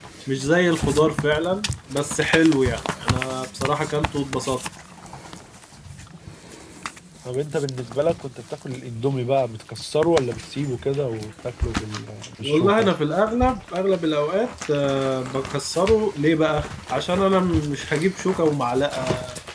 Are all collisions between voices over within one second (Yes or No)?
Yes